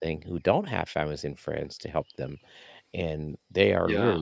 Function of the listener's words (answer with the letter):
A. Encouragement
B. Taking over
A